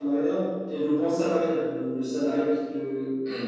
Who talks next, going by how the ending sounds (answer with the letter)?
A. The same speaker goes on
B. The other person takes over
B